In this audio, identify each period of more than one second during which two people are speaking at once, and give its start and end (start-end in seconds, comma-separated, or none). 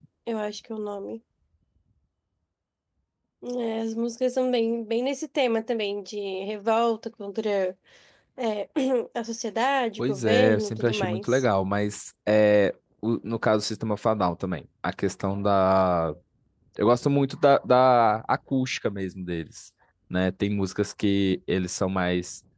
10.0-11.4